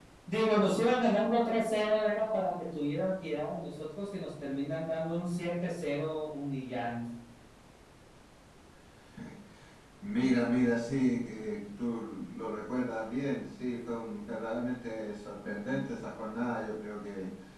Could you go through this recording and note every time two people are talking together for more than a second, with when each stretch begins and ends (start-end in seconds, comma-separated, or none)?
none